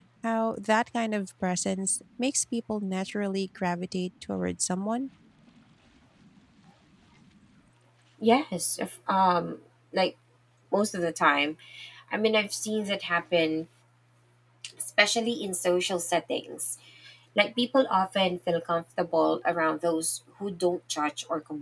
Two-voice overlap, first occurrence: none

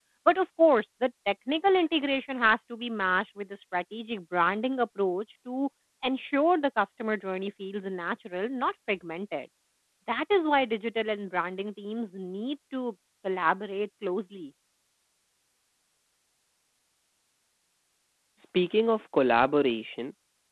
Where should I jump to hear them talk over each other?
none

